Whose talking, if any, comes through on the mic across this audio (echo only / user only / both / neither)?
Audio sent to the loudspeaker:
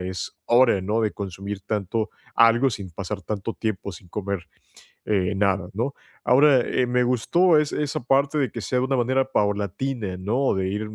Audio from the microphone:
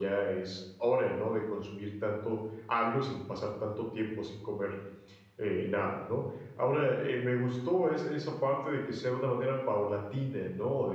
echo only